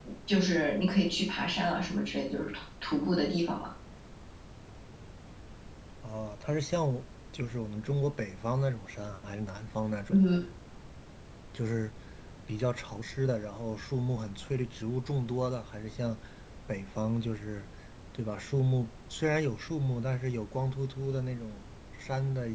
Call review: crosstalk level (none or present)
none